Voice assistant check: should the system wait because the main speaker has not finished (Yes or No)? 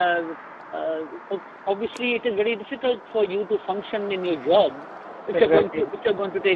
Yes